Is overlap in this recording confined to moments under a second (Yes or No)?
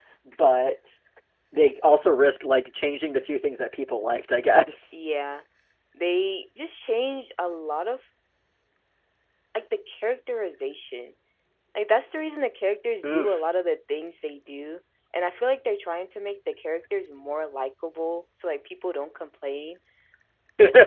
Yes